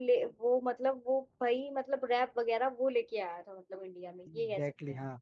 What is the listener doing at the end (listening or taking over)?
taking over